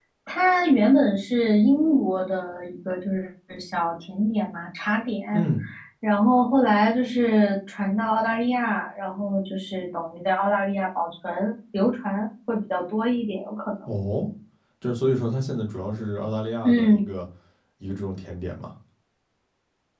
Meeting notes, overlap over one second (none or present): none